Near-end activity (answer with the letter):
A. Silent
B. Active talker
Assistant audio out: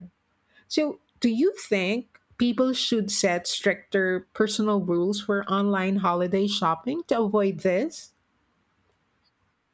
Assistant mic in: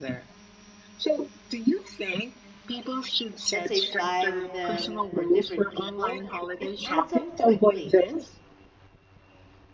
B